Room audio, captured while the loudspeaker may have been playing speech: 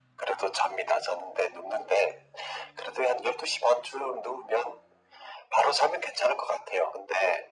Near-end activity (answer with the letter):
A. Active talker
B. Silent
B